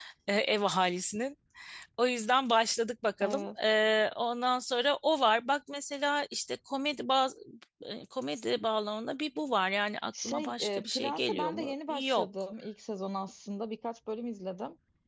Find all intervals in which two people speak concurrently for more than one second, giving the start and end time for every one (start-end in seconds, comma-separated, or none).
10.2-12.3